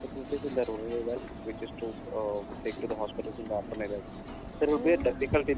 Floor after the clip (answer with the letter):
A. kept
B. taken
A